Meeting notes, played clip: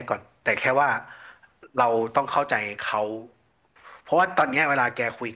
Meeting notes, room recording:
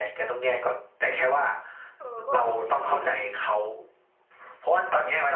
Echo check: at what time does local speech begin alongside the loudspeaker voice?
2.0 s

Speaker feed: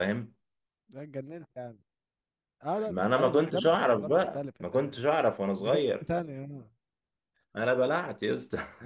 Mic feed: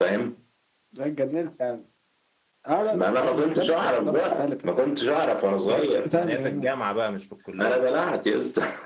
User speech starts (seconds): 5.6 s

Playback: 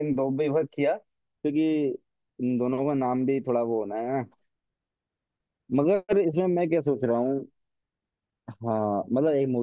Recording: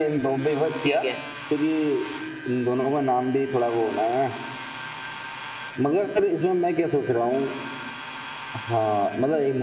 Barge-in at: 0.8 s

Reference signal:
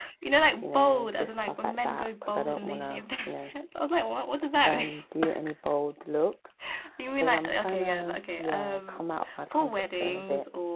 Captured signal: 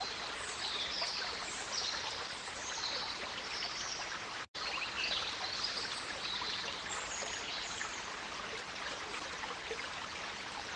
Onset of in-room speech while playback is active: none

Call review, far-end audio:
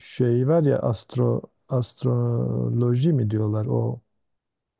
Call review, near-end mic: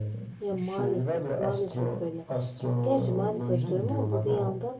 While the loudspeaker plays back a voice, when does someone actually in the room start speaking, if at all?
0.4 s

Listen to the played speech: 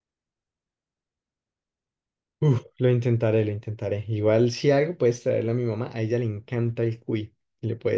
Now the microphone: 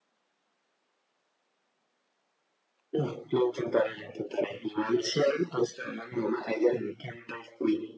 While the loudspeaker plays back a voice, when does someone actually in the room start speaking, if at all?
none

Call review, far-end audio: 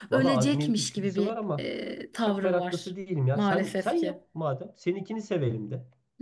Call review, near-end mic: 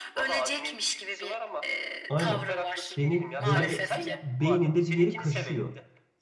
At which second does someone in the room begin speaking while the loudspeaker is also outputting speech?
2.1 s

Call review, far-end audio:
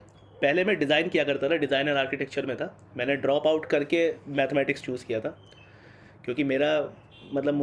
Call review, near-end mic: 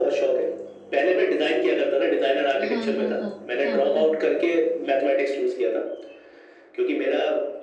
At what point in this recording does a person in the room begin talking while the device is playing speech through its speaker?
2.7 s

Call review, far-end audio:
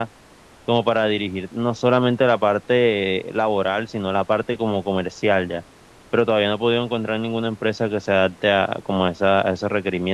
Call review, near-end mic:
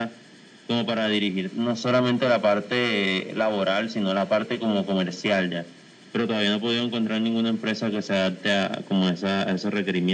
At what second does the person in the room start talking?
none

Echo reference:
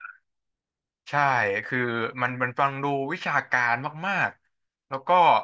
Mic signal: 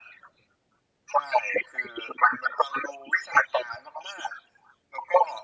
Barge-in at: none

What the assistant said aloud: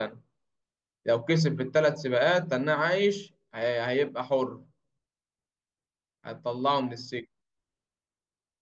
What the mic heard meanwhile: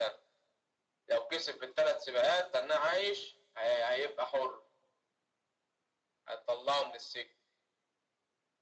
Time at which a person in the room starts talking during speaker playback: none

